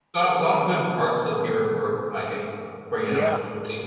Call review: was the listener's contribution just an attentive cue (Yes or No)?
No